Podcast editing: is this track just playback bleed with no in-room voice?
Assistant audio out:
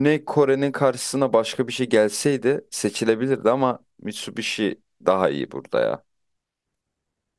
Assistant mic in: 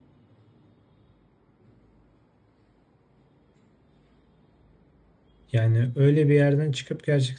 No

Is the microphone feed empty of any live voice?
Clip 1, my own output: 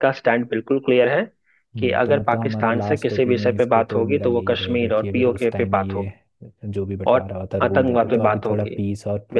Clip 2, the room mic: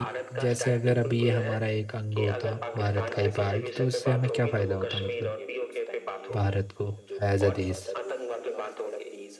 No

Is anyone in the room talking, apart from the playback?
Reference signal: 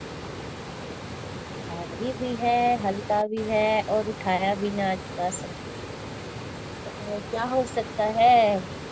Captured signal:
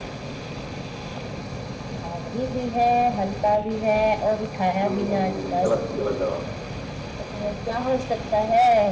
Yes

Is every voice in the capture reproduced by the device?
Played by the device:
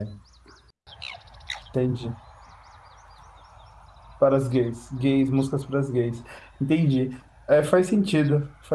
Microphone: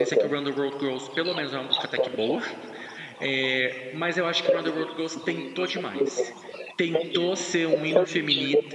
No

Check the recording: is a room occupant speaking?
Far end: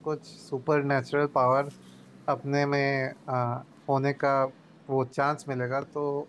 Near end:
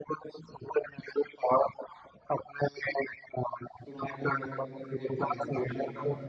Yes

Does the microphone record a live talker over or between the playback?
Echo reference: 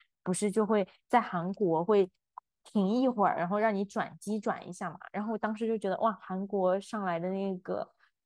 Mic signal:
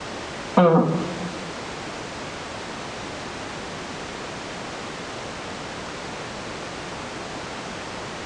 Yes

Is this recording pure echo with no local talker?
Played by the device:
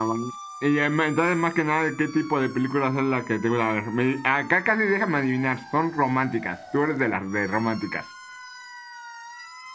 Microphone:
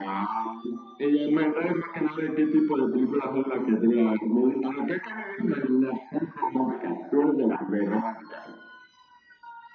Yes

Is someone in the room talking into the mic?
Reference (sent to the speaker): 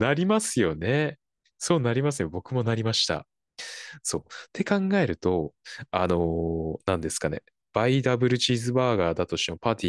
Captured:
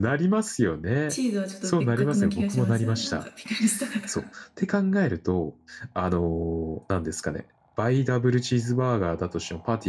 Yes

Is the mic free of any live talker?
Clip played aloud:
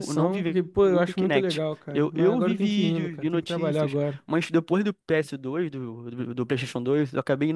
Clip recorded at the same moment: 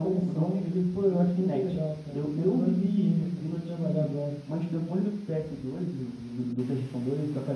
Yes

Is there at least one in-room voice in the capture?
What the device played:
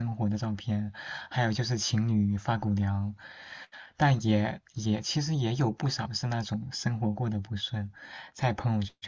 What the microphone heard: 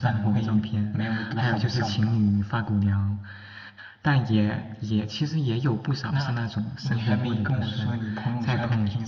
Yes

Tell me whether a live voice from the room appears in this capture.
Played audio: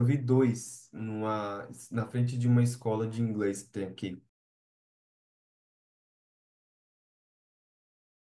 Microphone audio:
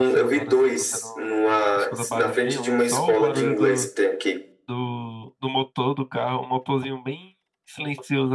Yes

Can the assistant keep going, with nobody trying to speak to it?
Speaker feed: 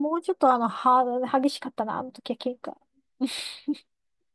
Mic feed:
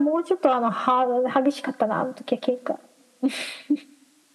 Yes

